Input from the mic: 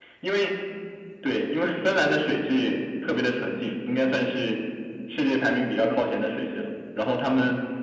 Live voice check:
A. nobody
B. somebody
A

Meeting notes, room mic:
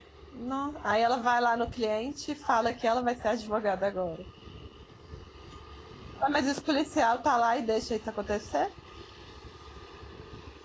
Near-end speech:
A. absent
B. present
B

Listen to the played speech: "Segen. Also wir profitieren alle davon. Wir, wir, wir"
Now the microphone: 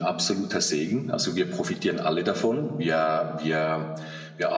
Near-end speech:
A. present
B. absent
B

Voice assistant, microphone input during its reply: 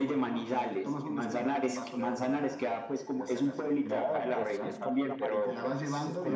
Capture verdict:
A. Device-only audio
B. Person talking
B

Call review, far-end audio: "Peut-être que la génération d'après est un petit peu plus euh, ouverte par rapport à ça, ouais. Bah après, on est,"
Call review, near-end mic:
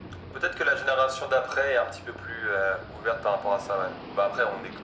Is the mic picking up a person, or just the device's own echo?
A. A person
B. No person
B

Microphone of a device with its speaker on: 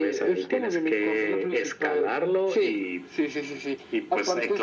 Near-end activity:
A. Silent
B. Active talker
A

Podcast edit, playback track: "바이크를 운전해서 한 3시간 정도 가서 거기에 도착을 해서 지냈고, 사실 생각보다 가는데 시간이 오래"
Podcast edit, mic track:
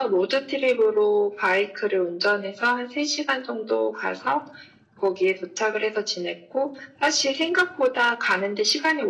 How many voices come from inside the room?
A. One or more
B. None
B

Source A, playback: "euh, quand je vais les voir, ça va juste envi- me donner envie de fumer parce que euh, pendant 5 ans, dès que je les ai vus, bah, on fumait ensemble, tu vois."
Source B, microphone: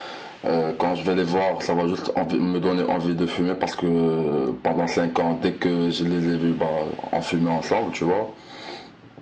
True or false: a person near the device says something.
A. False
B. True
A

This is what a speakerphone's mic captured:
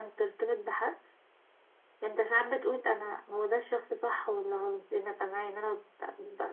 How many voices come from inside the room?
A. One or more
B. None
B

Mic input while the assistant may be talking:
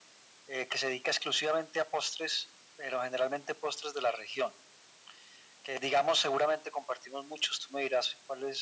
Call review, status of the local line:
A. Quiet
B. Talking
A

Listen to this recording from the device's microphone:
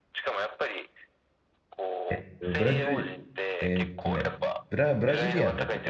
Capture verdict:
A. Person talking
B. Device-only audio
A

